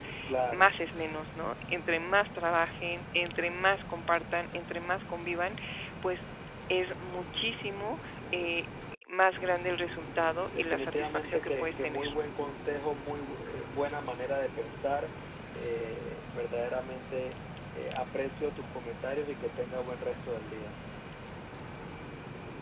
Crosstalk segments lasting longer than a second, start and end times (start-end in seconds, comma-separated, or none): 10.5-12.1